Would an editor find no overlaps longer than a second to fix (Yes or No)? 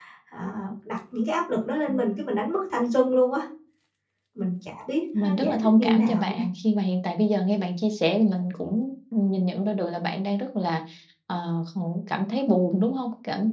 No